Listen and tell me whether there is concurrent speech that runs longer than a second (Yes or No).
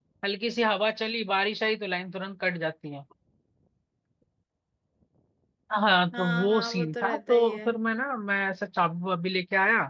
Yes